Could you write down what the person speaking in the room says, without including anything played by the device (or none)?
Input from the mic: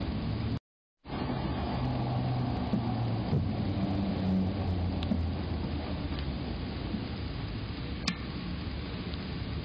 none